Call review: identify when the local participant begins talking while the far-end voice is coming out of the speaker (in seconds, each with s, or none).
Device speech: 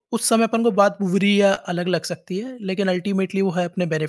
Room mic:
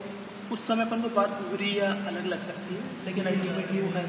3.0 s